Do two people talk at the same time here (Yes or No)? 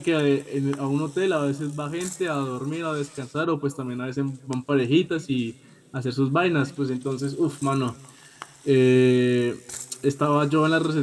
No